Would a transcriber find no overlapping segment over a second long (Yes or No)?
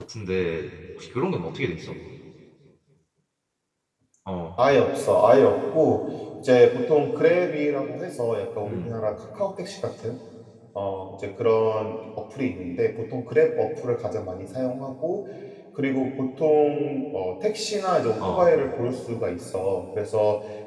Yes